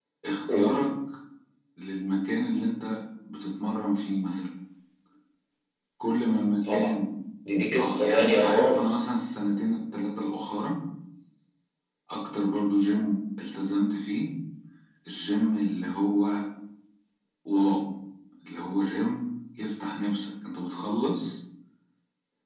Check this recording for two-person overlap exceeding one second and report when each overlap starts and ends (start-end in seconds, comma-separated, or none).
7.8-9.0